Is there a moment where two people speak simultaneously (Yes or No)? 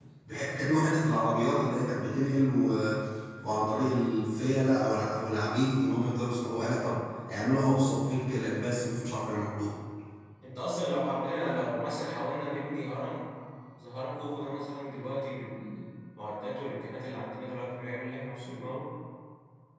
No